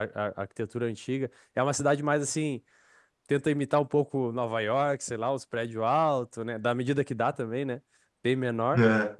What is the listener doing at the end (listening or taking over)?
listening